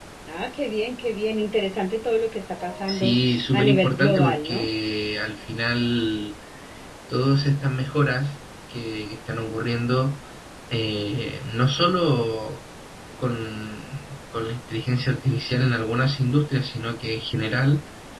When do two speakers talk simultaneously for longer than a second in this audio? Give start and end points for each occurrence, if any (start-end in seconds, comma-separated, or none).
2.9-4.7